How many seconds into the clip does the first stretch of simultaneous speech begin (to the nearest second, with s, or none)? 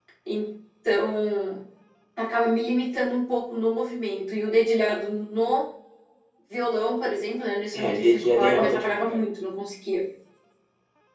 8 s